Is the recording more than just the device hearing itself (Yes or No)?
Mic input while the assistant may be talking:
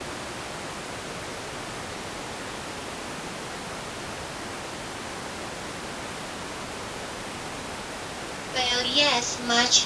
Yes